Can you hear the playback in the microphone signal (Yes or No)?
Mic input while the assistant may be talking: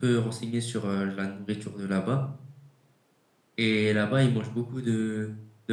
No